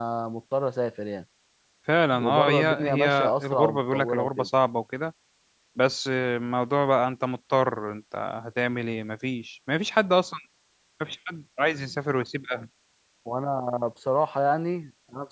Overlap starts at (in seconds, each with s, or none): 2.2 s